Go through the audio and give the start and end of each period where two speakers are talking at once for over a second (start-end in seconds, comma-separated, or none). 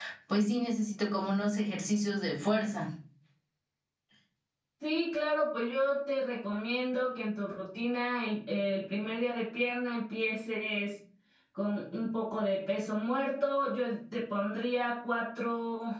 none